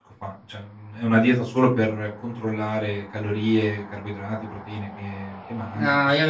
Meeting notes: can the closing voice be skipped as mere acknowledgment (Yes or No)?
No